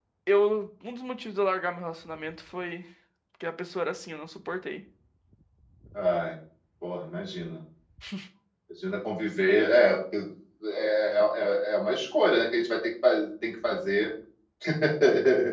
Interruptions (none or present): none